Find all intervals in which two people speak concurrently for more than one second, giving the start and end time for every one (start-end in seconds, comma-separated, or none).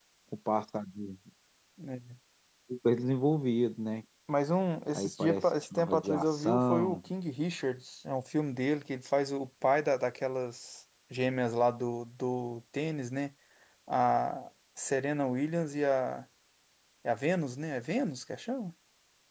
4.9-7.0